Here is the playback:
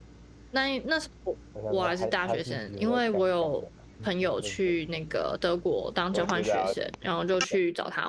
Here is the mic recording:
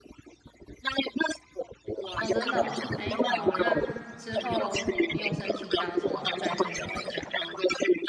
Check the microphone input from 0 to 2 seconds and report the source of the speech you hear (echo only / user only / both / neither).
echo only